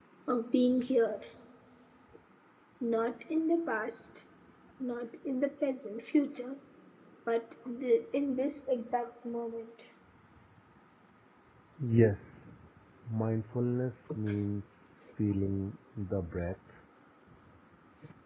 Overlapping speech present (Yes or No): No